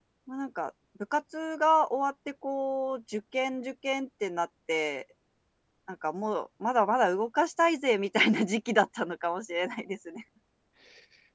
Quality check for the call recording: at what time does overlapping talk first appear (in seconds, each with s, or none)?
none